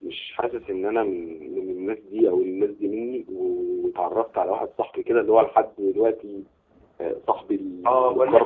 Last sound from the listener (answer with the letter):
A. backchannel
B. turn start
B